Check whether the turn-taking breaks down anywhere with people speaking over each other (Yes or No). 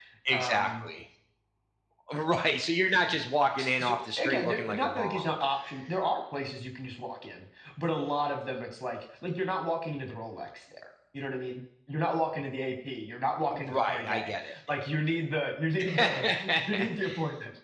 Yes